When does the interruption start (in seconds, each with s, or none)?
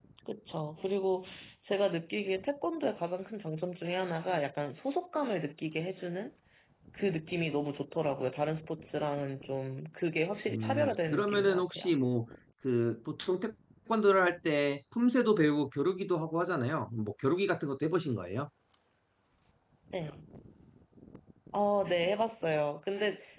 10.5 s